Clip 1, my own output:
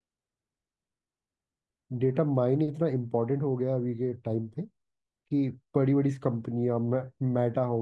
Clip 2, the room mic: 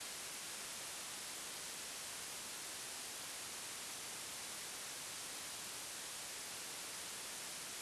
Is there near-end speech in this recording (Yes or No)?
No